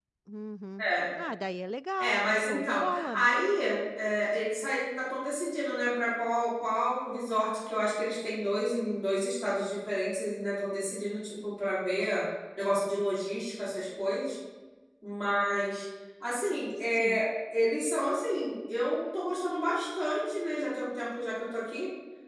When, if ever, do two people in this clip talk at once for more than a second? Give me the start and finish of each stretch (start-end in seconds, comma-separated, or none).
2.0-3.3